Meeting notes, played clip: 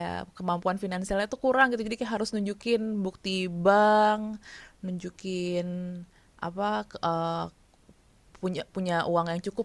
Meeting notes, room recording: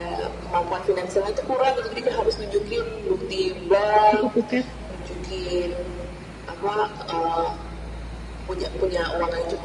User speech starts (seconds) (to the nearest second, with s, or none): 4 s